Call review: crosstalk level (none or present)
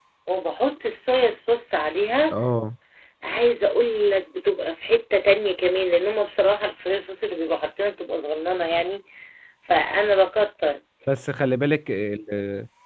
none